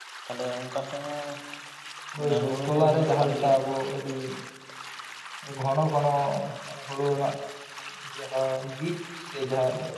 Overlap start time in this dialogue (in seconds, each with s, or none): 2.2 s